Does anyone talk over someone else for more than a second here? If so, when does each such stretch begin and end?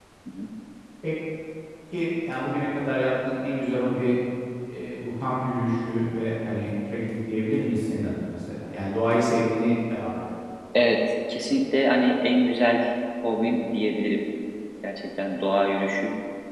none

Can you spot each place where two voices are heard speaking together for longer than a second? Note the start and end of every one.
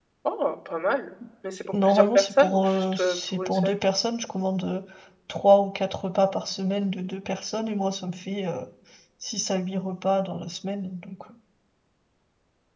1.8-3.8

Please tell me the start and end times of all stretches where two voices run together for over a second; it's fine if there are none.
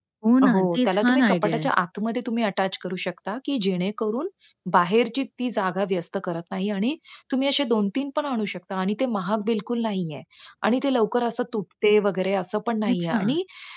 0.5-1.7

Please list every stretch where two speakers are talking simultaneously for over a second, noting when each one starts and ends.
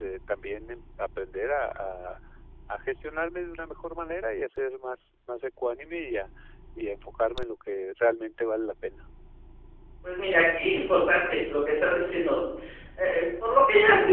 none

